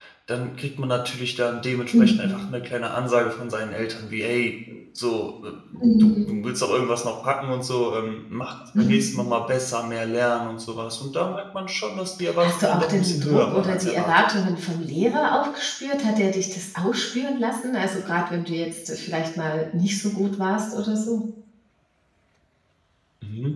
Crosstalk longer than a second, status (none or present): present